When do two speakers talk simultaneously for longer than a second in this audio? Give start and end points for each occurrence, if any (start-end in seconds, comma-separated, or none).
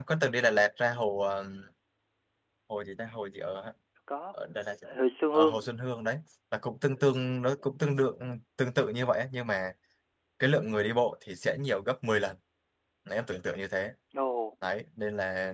none